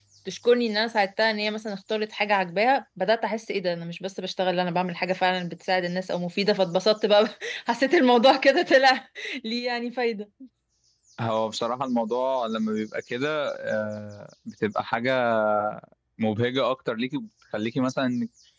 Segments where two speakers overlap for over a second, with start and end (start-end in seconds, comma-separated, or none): none